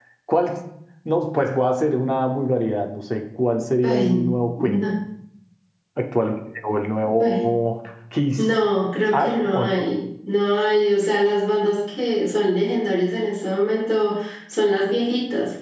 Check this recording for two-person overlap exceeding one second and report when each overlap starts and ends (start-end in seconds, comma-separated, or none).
none